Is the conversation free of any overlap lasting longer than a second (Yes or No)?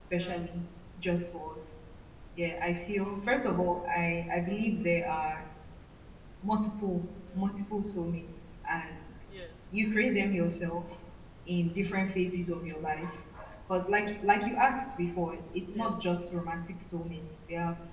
Yes